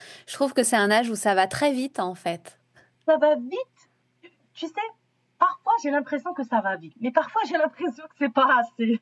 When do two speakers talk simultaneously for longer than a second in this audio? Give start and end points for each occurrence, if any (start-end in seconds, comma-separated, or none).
none